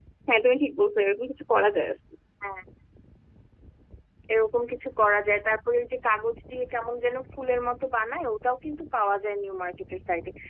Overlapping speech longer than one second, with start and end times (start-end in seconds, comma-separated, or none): none